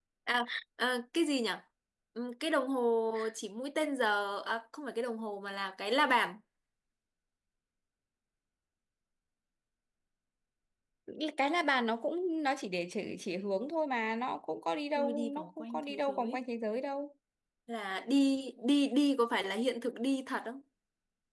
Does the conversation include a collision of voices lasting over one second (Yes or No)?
Yes